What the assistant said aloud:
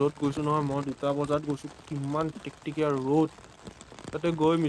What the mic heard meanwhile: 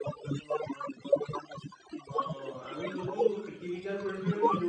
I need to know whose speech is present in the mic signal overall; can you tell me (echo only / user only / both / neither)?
both